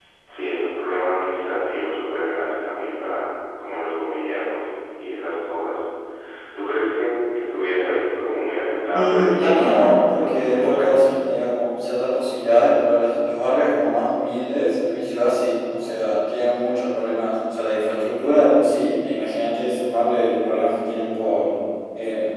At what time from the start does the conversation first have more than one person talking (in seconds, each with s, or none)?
8.9 s